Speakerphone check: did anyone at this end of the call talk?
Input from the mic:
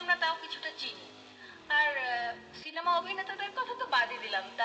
No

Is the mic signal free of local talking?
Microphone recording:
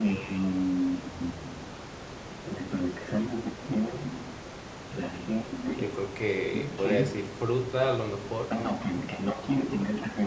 No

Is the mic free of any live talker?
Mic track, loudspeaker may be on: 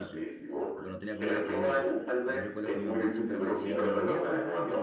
No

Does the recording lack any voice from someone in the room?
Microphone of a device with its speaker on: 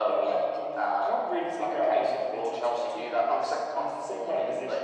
Yes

